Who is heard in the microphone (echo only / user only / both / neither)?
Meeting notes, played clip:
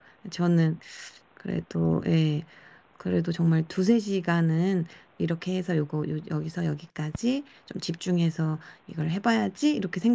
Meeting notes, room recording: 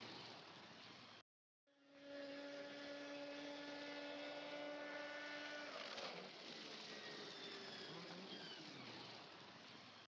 neither